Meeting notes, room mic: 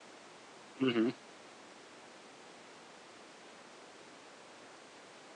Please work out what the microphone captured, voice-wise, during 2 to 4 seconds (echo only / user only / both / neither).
neither